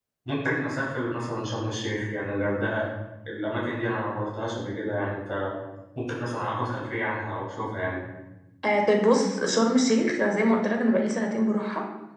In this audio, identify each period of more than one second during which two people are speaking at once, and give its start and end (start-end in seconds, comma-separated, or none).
none